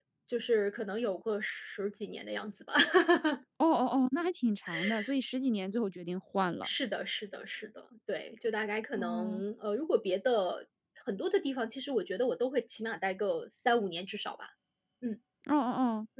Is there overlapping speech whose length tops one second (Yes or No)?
No